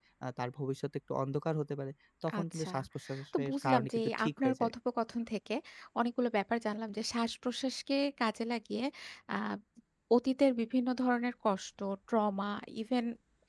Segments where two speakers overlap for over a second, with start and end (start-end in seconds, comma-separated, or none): 3.4-4.7